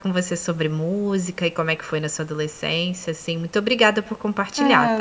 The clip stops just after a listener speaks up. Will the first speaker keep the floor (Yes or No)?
No